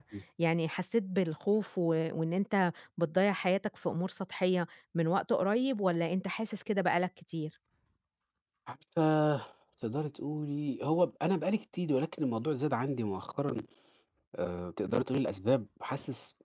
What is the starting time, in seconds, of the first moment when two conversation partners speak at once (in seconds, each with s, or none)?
none